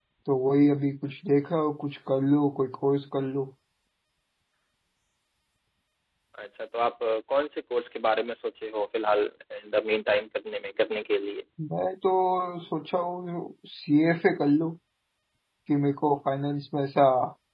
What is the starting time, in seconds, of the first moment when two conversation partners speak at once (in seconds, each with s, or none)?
none